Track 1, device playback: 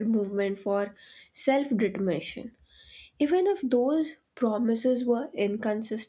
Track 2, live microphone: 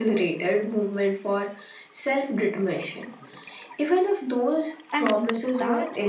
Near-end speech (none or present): present